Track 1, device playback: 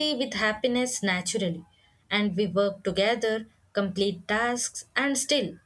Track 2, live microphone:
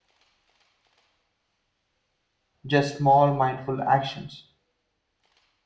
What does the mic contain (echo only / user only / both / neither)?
user only